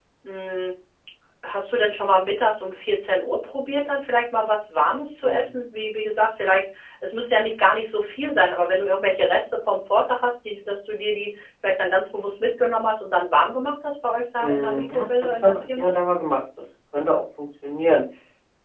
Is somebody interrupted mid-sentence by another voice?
Yes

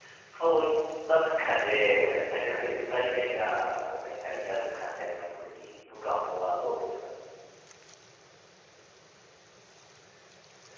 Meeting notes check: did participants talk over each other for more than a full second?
Yes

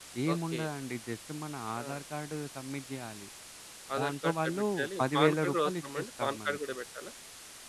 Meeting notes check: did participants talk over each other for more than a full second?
Yes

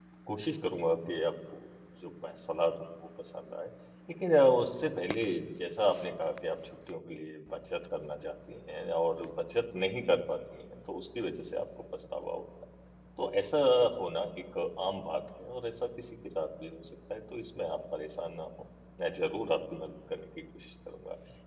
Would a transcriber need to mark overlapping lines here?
No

